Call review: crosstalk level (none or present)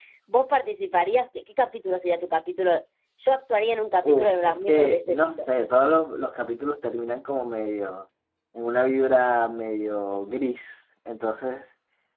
present